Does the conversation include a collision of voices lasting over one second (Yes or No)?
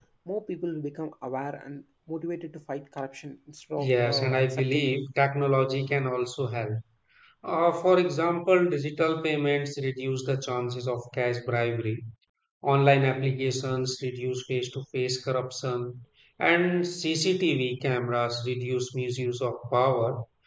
Yes